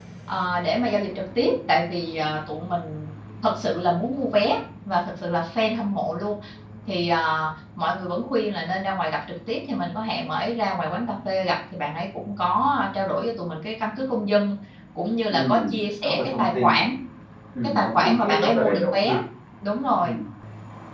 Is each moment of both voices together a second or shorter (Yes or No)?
No